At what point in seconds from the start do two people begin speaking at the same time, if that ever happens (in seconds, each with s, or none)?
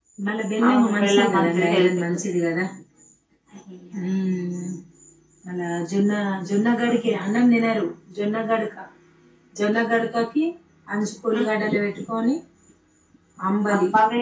0.7 s